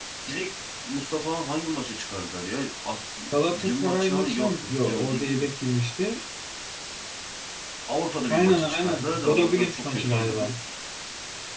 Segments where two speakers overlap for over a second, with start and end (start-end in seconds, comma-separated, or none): 3.5-5.5, 8.3-10.5